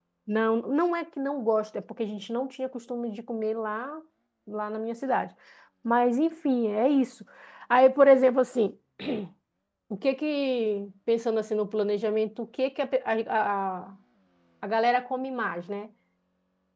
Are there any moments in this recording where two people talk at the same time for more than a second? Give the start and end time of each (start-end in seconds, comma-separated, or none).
none